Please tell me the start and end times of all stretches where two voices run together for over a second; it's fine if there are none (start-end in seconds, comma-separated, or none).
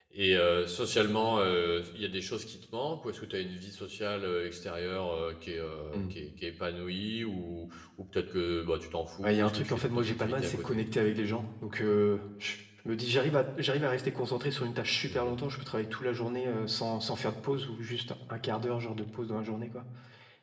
9.2-10.8